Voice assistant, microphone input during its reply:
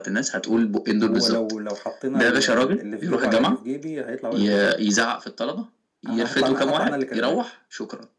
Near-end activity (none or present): none